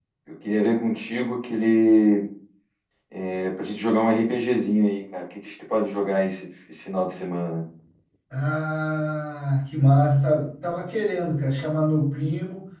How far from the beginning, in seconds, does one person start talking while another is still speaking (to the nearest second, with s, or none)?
none